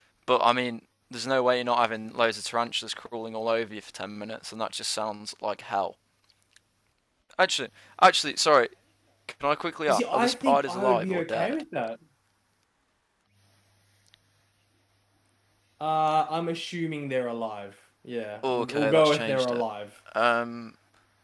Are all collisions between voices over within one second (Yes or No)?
No